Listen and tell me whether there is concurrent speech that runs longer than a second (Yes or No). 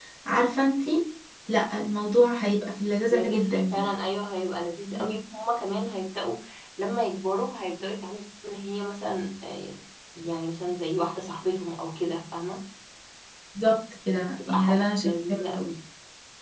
Yes